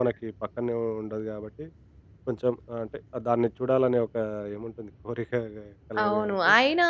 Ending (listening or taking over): taking over